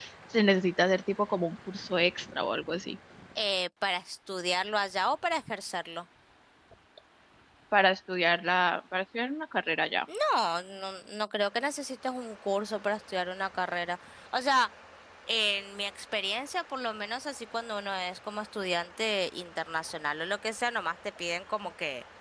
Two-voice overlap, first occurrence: none

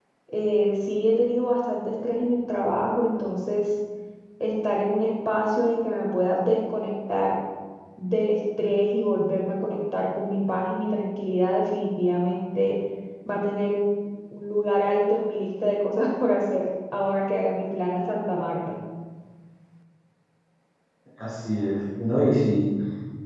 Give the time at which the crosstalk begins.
none

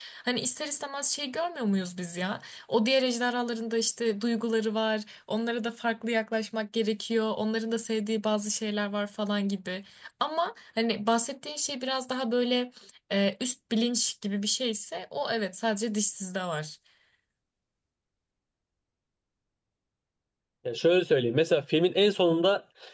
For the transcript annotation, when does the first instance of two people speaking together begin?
none

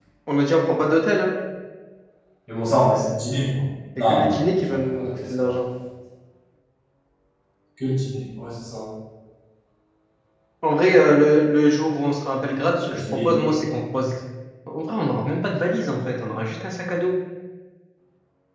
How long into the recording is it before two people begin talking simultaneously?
4.0 s

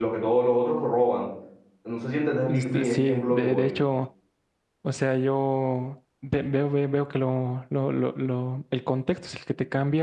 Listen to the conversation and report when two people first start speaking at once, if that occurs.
2.5 s

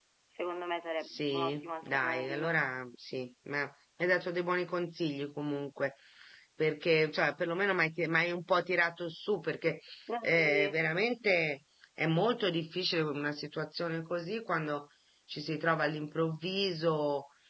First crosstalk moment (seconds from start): 1.0 s

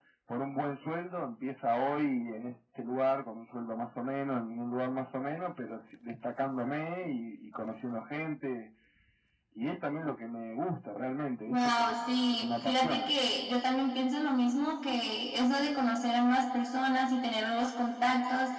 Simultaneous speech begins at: 11.5 s

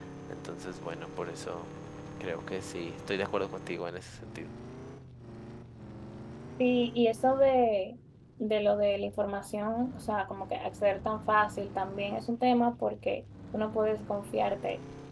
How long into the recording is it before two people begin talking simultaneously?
none

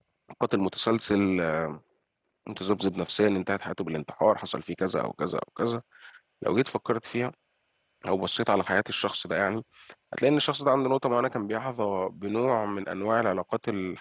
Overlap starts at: none

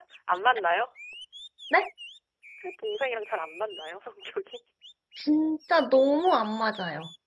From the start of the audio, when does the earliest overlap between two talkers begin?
none

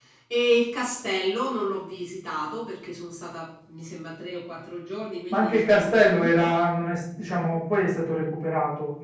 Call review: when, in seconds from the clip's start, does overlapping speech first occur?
5.3 s

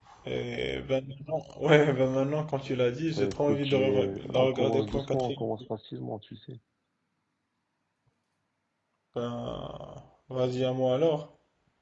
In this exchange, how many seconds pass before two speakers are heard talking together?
3.1 s

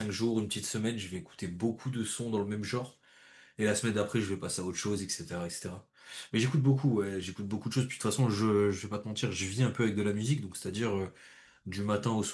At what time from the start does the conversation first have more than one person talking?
none

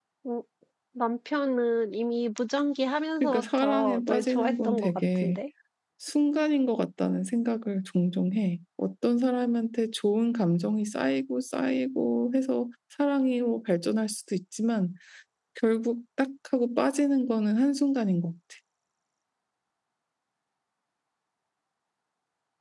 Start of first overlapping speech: 3.2 s

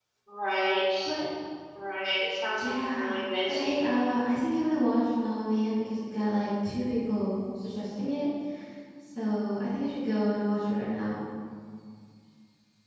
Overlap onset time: 2.6 s

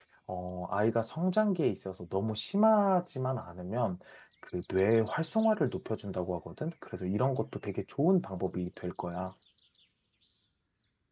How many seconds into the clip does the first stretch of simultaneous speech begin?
none

